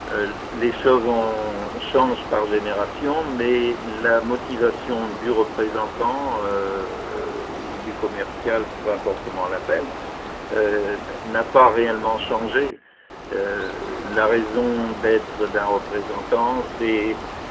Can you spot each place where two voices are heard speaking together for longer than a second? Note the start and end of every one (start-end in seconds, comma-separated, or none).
none